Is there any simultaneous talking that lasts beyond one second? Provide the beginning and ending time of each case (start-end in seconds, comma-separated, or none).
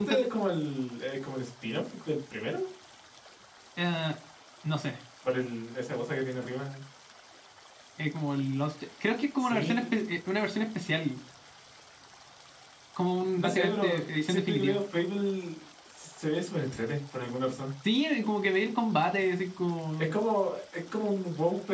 13.4-14.8